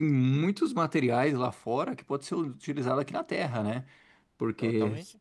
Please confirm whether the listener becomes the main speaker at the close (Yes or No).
No